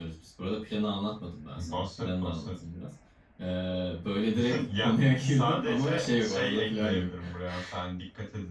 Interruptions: present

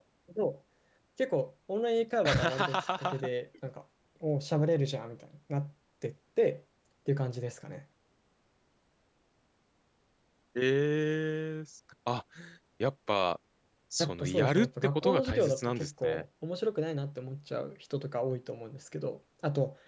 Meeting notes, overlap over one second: present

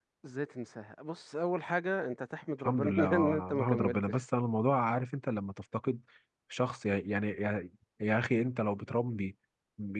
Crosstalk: present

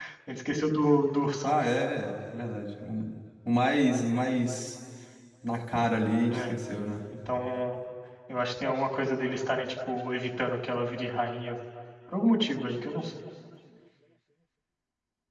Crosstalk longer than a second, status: none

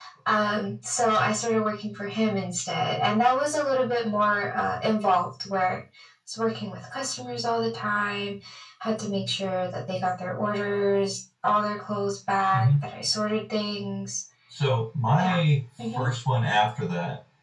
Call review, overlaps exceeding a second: none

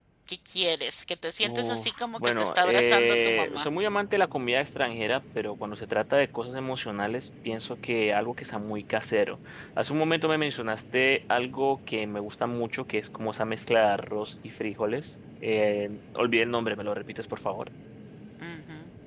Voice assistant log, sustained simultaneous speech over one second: present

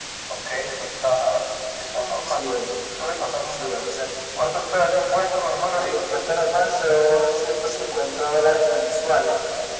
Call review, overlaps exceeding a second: none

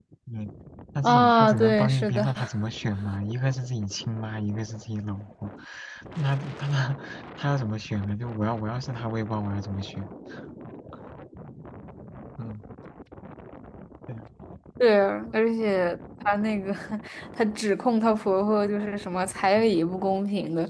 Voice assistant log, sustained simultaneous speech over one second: present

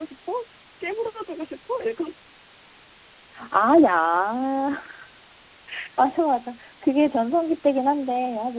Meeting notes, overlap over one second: none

